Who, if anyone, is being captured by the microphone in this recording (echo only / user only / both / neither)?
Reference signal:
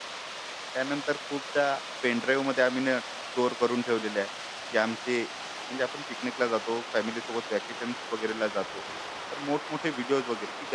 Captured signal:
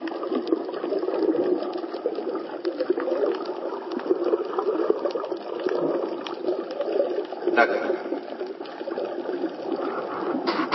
user only